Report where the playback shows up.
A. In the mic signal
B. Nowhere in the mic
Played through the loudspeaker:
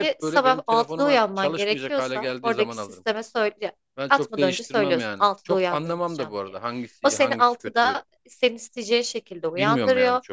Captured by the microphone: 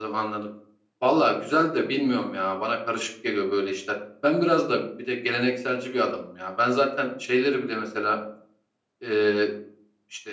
B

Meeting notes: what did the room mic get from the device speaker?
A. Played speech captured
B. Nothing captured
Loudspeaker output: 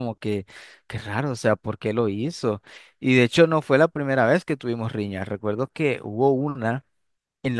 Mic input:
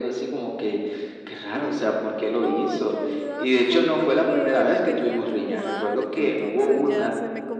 A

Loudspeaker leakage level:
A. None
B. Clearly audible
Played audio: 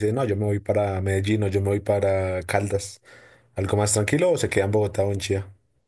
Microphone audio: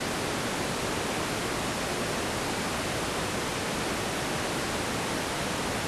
A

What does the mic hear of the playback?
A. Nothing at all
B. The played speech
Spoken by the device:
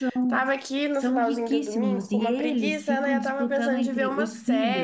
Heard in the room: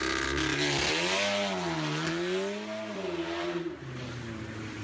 A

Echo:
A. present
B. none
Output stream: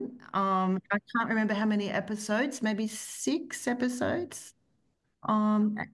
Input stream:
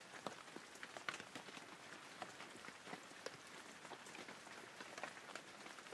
B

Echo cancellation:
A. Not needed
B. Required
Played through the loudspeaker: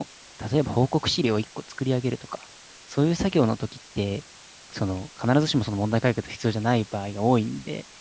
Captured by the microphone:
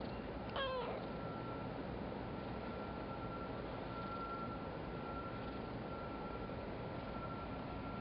A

